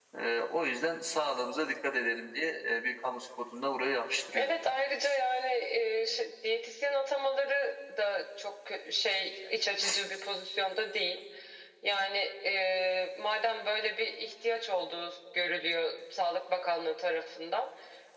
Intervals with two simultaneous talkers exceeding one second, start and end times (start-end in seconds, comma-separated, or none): none